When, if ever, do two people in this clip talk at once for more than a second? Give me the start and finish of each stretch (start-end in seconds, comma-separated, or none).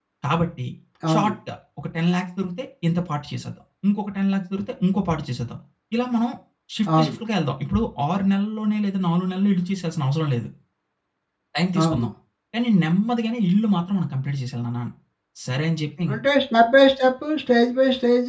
none